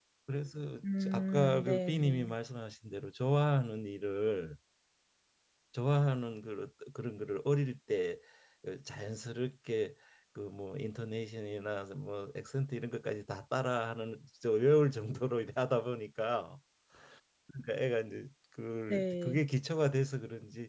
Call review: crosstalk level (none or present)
present